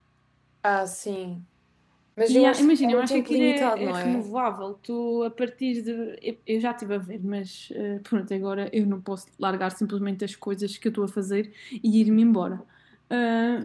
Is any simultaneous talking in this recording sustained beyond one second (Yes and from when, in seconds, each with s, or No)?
Yes, from 2.3 s